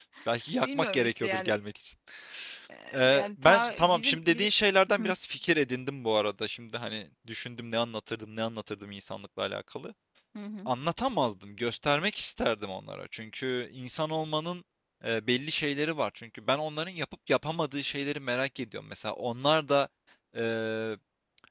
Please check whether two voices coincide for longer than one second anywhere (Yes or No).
Yes